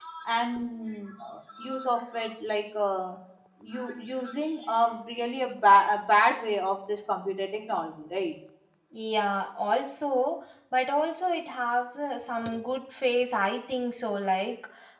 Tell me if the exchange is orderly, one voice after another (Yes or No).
Yes